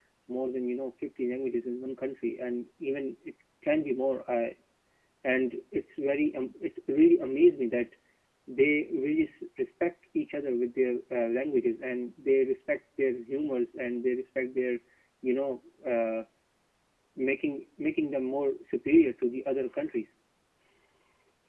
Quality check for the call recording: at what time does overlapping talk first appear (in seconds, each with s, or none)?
none